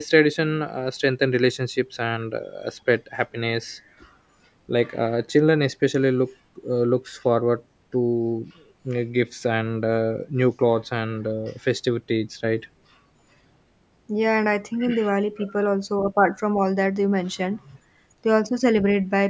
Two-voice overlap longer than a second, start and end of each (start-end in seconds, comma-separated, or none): none